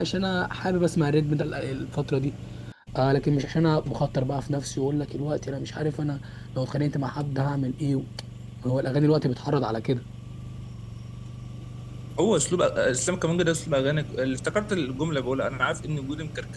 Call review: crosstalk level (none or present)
none